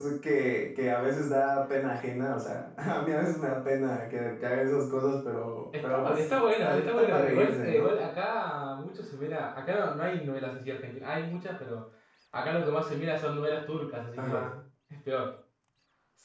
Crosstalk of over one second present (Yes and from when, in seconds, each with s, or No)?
Yes, from 5.8 s